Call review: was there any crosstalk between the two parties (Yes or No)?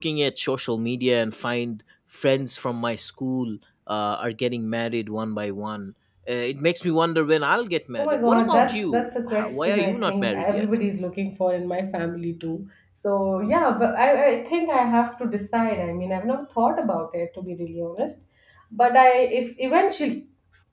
Yes